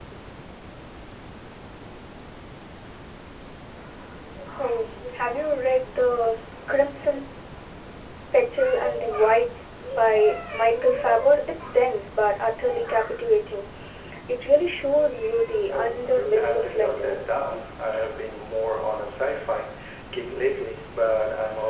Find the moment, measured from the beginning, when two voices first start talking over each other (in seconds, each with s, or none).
15.7 s